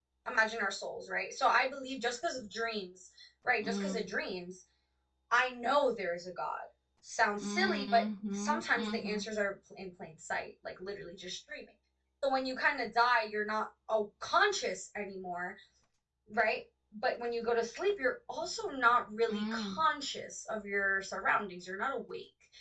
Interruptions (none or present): present